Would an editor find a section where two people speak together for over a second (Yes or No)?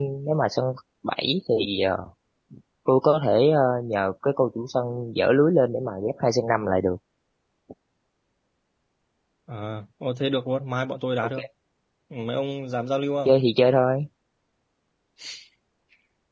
No